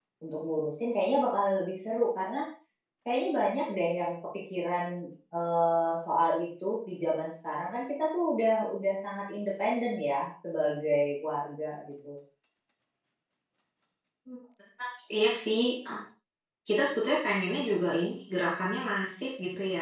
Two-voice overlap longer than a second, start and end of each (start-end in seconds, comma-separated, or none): none